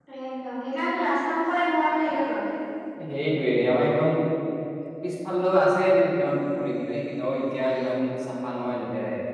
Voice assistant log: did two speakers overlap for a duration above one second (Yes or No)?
No